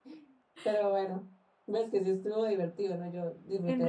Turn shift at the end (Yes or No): Yes